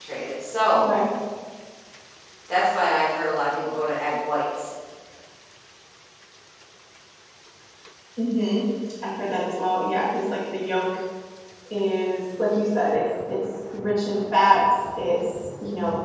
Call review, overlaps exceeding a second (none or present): none